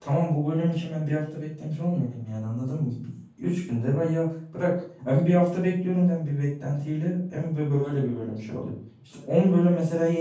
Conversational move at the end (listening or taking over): listening